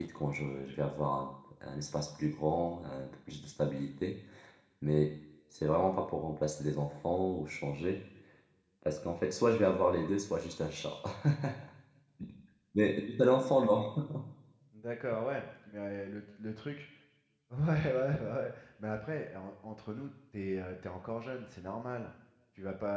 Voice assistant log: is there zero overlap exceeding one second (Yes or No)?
Yes